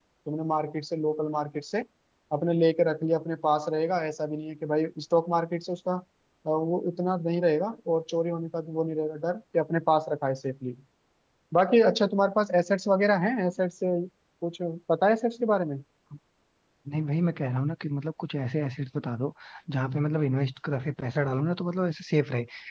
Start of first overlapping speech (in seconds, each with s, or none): none